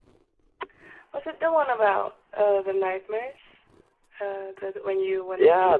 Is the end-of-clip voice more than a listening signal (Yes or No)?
Yes